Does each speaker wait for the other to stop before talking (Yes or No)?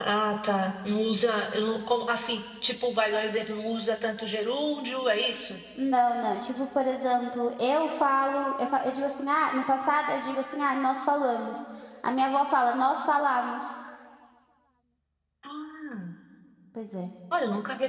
Yes